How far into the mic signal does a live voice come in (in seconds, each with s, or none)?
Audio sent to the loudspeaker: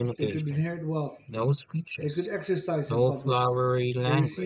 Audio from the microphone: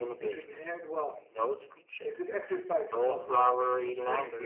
3.0 s